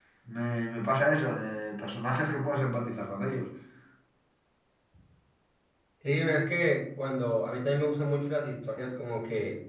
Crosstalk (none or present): none